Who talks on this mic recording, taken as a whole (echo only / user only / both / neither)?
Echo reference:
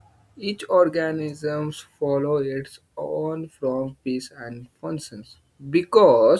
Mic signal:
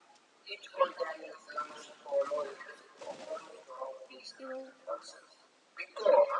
both